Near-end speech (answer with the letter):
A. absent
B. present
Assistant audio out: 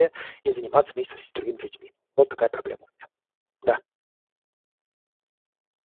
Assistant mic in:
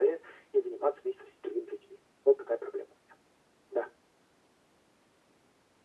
A